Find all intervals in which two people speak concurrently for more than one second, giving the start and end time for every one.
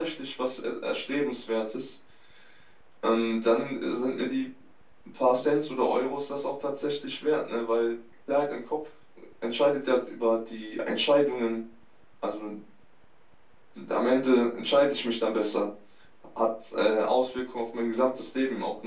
none

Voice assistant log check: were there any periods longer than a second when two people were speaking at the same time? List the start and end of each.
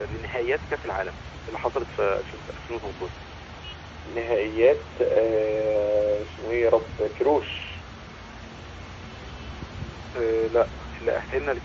none

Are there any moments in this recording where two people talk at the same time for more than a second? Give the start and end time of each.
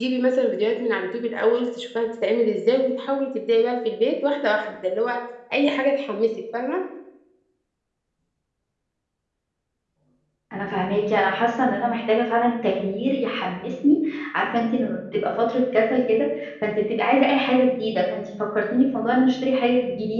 none

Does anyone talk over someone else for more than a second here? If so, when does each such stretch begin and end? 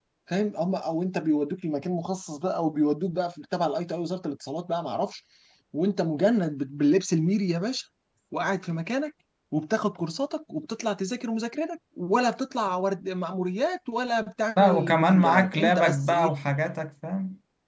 14.6-16.3

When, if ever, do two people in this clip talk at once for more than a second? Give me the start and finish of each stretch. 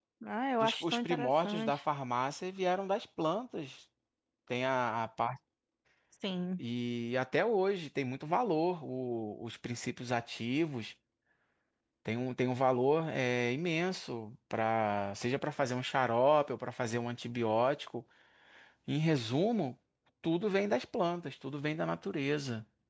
0.6-1.8

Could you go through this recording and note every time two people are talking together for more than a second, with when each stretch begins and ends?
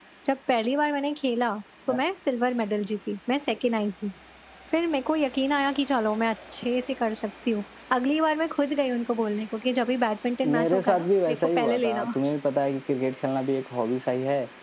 10.4-12.0

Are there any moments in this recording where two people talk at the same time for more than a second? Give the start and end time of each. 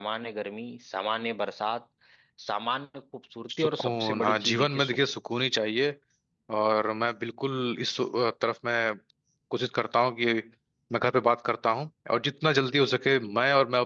3.6-5.0

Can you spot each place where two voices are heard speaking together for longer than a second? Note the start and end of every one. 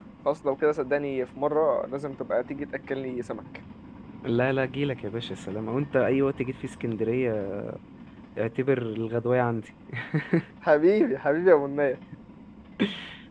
none

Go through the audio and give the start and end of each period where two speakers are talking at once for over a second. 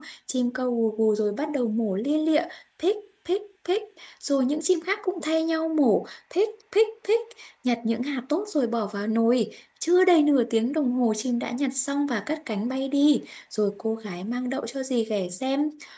none

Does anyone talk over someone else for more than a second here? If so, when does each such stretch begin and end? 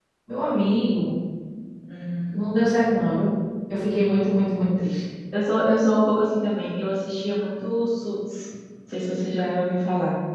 none

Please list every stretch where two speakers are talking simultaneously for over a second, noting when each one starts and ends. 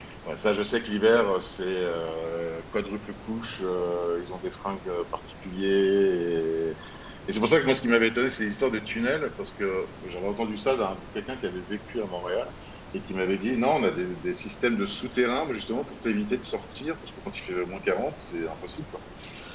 none

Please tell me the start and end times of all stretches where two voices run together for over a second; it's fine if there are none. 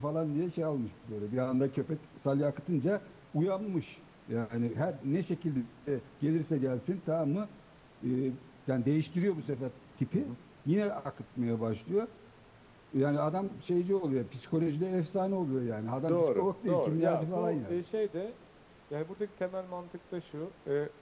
16.1-17.8

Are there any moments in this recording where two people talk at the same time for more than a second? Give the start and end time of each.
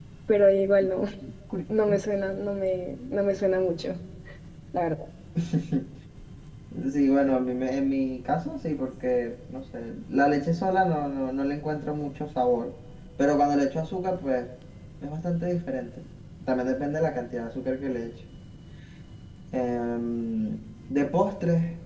none

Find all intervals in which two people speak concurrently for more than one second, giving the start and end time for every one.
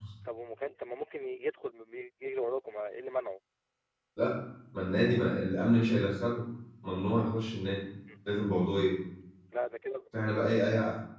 none

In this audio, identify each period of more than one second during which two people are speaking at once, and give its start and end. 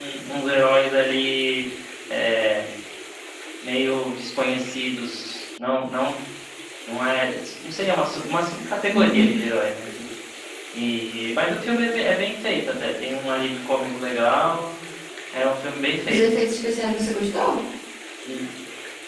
none

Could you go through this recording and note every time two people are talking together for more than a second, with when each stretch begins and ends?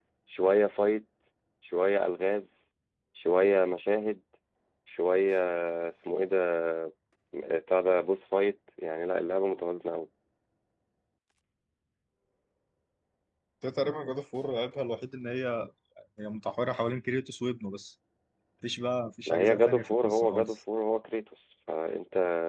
19.3-20.6

